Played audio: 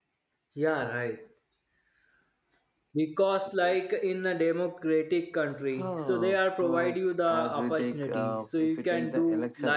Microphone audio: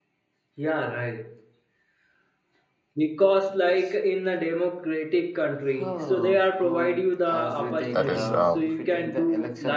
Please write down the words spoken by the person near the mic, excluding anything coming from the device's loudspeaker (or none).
that is uh,